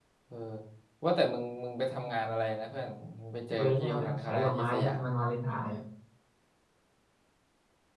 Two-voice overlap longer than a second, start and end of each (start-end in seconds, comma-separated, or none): 3.5-5.0